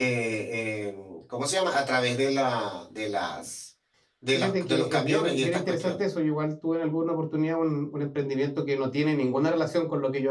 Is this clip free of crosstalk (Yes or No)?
No